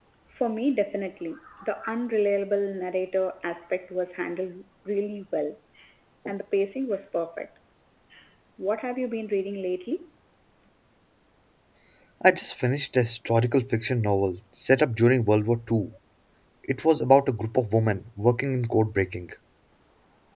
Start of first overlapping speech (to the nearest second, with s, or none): none